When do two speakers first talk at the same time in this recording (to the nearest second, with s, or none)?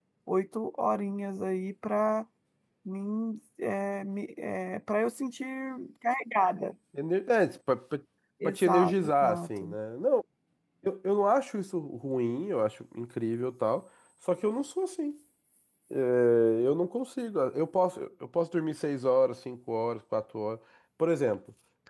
8 s